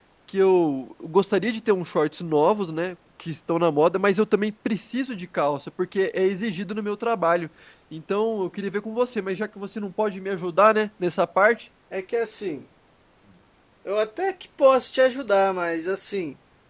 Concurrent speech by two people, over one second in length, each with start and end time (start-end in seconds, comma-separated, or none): none